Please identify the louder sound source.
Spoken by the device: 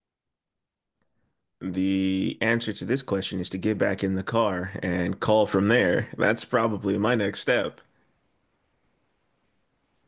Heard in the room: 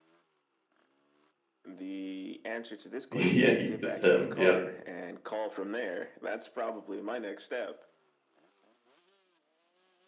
user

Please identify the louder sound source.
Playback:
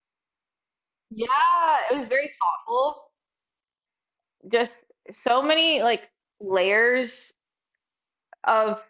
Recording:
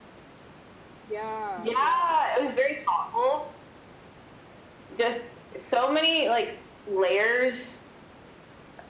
echo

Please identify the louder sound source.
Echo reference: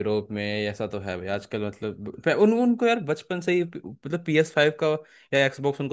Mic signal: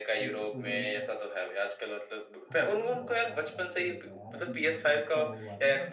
echo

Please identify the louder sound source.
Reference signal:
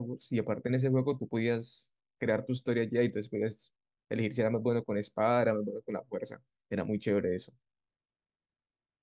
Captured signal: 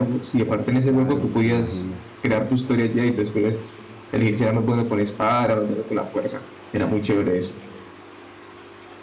echo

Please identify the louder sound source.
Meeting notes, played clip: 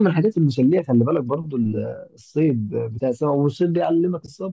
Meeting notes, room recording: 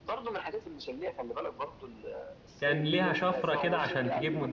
user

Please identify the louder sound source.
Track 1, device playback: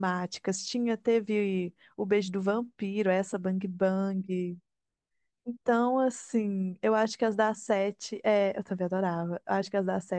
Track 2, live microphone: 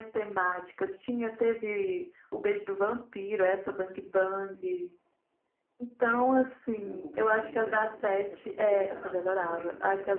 echo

